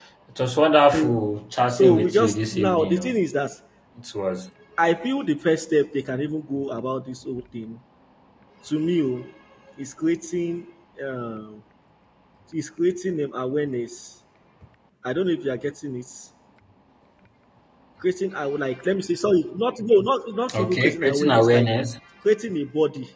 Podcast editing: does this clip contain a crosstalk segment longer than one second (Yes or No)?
Yes